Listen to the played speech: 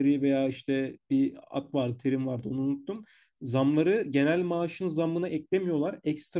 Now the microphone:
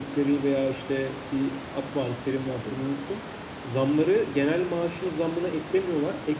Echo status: present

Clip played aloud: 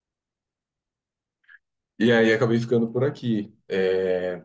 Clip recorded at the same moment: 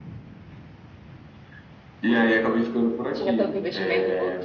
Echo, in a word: present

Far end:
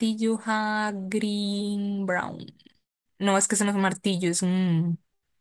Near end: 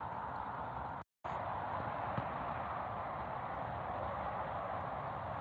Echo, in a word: none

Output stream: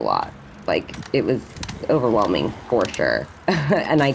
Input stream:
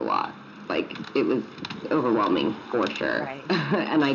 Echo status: present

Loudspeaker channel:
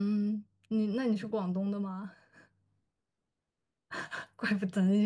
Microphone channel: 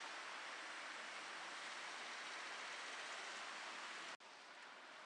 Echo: none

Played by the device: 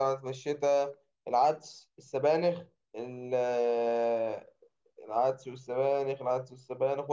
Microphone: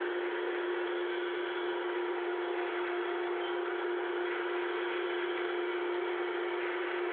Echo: none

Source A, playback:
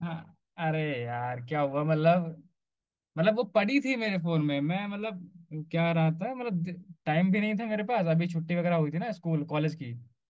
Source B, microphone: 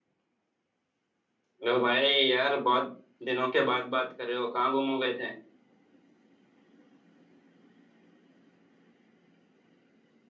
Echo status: none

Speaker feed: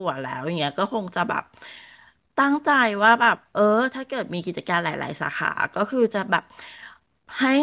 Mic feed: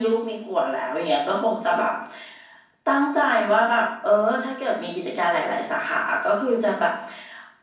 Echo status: present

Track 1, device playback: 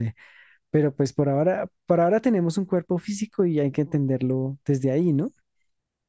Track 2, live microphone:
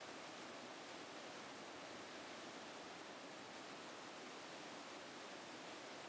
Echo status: none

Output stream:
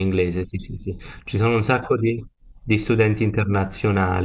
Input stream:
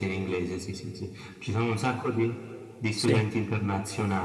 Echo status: present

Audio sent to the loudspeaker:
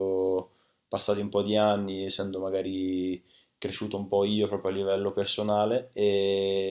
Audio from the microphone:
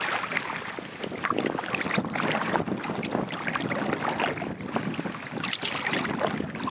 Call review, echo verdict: none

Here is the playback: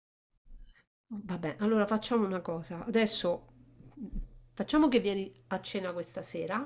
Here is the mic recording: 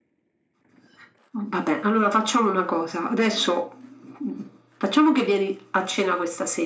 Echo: present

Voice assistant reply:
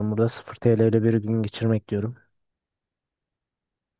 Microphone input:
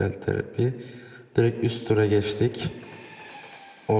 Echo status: none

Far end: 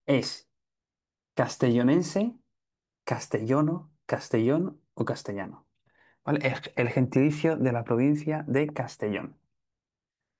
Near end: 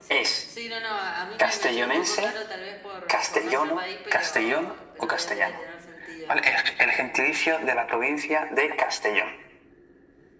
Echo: present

